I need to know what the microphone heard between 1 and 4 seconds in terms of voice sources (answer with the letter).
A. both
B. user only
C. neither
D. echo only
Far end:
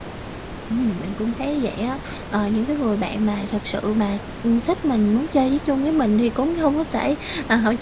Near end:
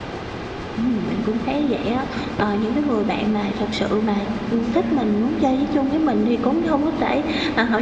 D